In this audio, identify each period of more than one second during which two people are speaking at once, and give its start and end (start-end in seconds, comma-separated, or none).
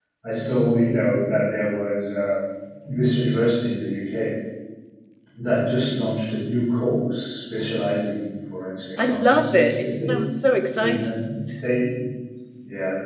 9.0-10.2